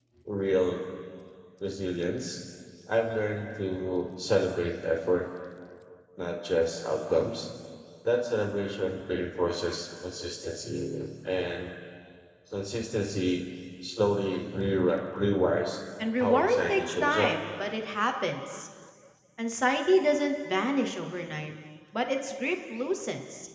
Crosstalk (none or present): present